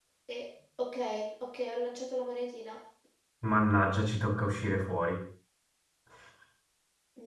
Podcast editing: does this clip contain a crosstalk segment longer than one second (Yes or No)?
No